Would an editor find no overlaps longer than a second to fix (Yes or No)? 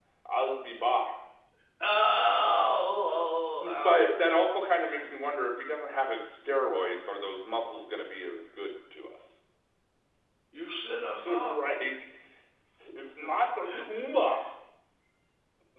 Yes